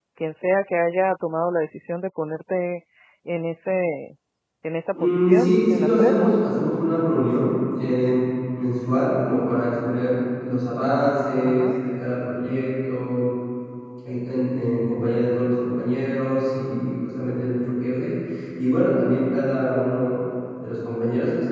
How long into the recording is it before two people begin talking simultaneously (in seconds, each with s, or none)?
5.0 s